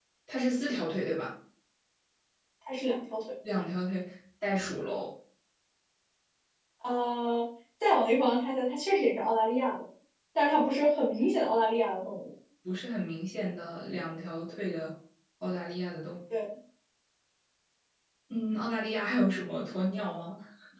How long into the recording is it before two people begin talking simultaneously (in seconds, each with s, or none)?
none